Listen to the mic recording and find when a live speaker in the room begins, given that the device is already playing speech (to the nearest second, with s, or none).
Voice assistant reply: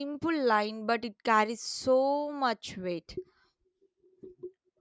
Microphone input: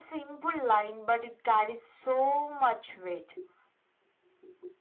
none